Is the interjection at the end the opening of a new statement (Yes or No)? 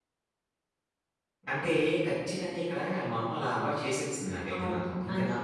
Yes